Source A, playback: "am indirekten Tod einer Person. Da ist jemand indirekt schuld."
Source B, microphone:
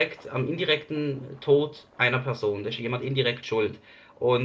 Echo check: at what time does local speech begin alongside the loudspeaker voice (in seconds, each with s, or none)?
none